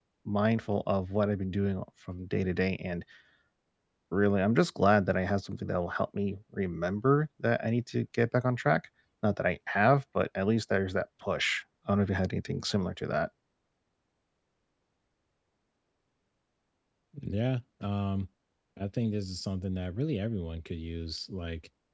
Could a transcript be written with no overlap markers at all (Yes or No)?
Yes